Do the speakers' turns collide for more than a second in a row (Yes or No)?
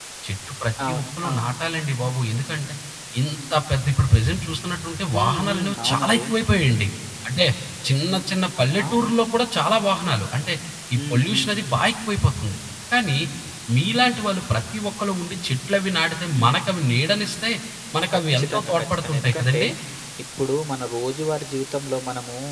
Yes